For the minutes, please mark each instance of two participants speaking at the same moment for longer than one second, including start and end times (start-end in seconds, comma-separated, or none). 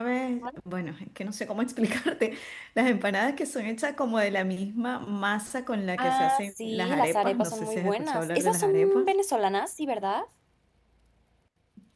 6.0-9.1